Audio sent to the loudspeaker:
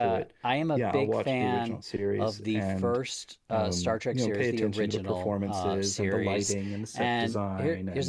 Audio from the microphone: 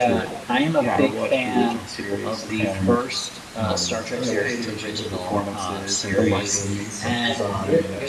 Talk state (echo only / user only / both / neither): echo only